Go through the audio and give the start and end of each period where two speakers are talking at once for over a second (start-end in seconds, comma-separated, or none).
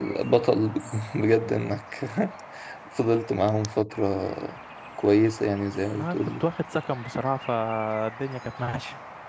none